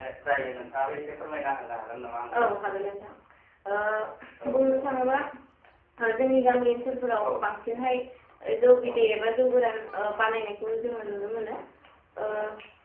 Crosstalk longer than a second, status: none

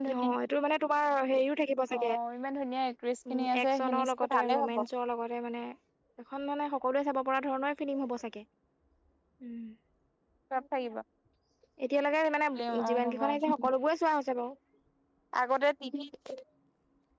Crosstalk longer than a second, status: present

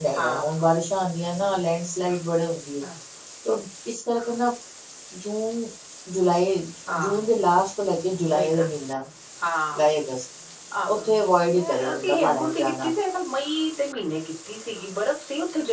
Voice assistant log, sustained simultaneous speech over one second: present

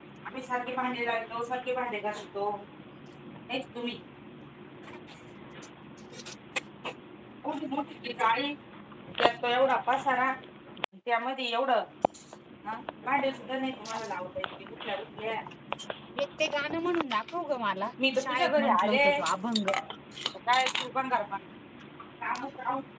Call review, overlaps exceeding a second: present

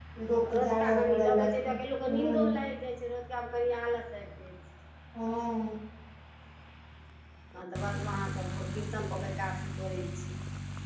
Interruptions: present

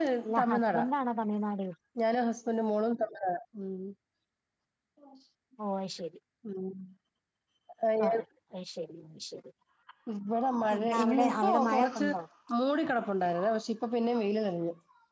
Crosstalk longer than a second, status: present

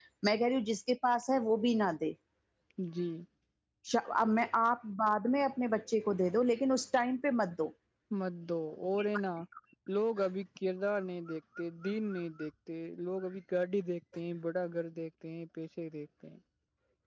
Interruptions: none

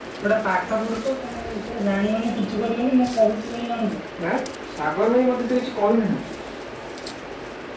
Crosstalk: none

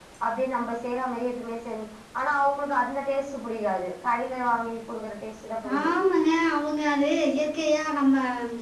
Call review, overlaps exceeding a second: none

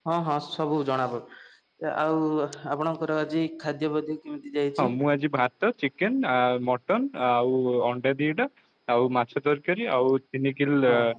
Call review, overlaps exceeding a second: none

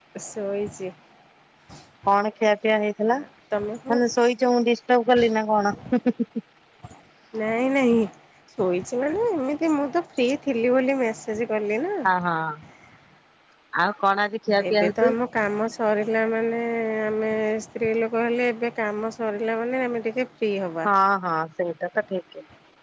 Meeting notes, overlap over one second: none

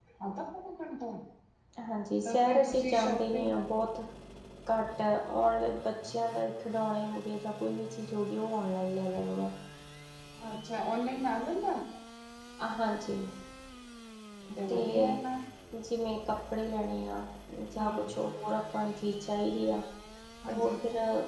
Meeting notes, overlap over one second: present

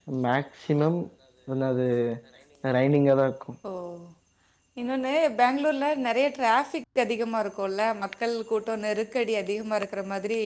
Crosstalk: none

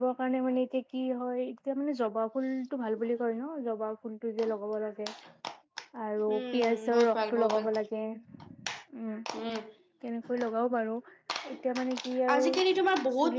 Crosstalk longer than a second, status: present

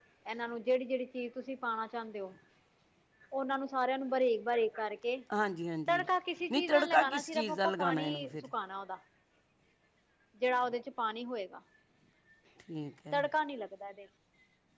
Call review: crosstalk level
present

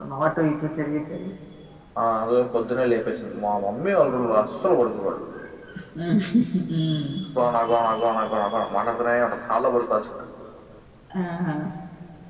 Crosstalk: none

